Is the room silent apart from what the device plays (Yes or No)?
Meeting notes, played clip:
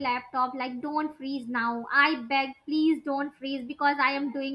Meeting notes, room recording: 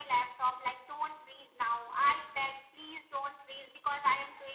Yes